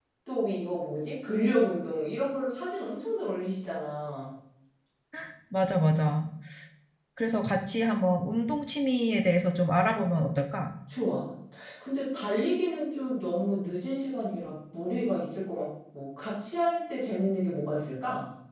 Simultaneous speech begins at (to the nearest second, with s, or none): none